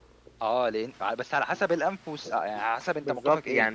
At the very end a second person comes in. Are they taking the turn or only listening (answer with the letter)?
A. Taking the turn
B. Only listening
A